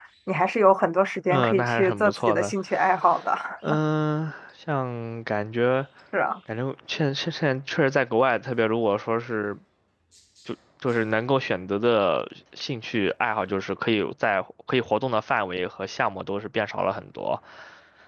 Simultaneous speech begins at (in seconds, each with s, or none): 1.3 s